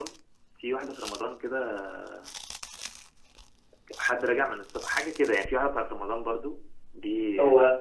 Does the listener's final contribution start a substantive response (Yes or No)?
Yes